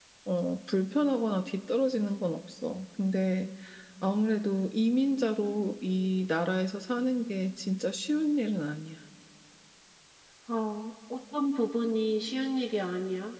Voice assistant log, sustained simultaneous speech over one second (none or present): none